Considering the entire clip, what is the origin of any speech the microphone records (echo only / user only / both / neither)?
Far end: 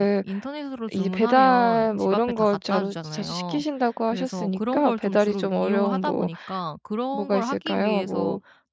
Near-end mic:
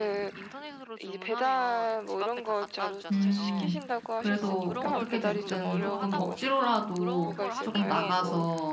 both